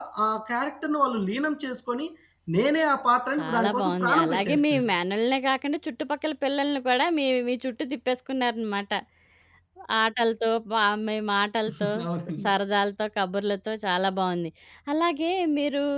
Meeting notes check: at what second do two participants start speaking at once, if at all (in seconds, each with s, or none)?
3.4 s